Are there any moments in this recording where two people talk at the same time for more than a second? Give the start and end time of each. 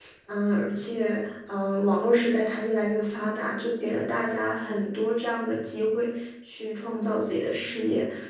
none

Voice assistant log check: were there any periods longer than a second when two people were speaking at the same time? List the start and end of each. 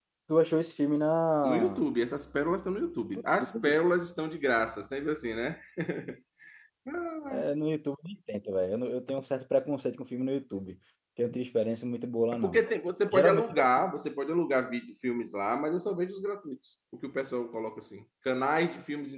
none

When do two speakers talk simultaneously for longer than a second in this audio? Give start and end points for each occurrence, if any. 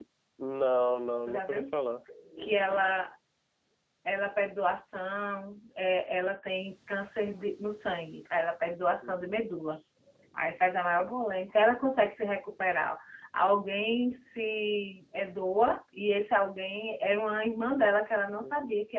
none

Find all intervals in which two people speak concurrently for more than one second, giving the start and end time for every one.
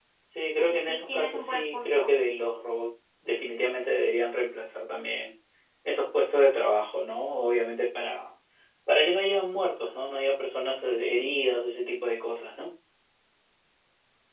0.6-2.1

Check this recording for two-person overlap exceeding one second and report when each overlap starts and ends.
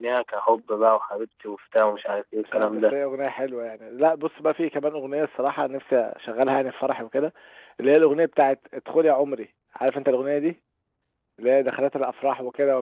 none

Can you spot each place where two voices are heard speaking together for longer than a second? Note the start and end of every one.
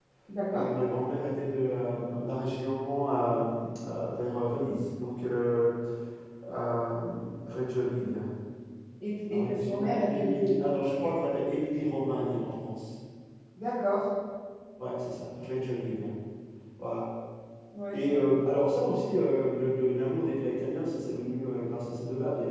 9.3-10.7

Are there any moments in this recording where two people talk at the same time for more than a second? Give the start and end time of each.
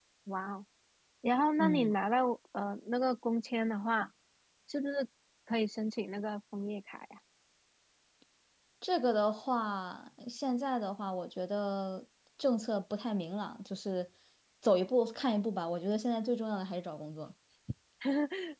none

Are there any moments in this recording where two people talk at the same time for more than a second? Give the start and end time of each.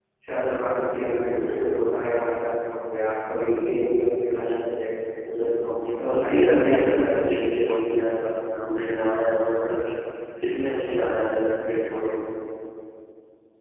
5.8-7.1

